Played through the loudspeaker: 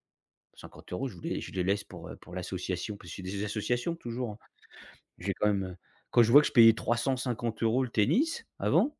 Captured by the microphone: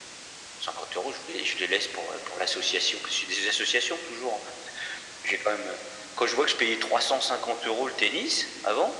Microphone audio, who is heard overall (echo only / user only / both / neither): echo only